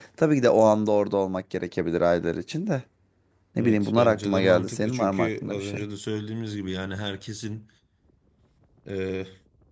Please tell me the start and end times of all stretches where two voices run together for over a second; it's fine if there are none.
3.6-5.8

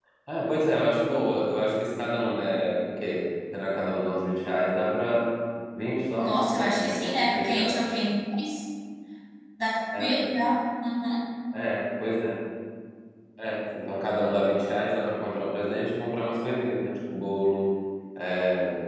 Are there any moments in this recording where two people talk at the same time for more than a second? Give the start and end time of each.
6.2-7.8

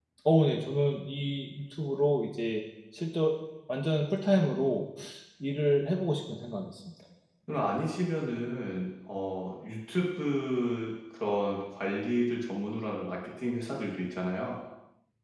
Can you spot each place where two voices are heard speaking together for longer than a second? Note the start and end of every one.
none

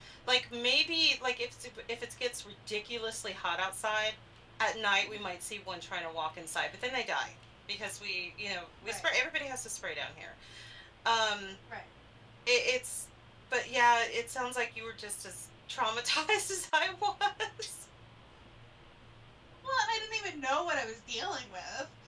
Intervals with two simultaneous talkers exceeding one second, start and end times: none

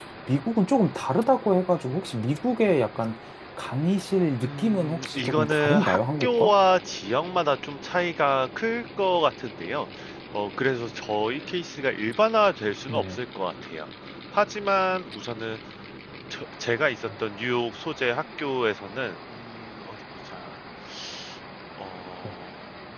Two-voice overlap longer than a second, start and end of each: 4.4-6.5

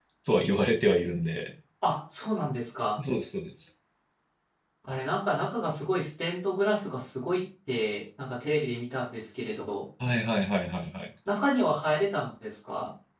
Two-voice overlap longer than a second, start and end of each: none

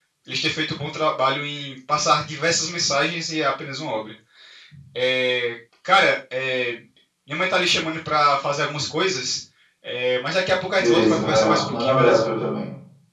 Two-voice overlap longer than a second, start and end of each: 10.8-12.2

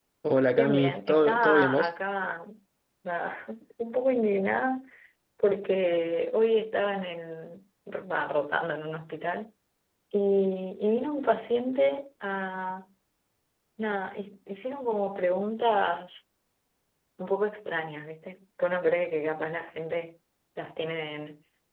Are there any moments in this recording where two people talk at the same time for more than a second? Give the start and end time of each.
0.6-1.9

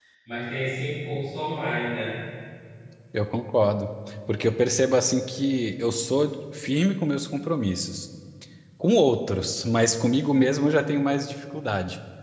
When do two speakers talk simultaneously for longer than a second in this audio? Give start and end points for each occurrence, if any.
none

